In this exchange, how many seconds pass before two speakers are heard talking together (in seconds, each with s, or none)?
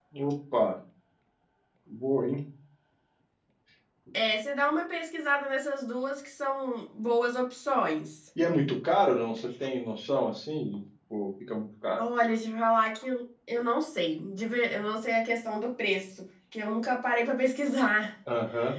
none